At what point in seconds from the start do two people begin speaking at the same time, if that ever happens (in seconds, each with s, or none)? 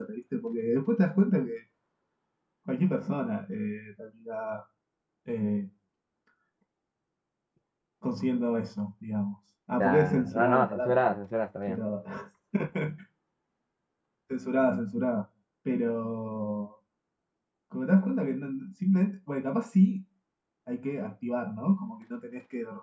9.8 s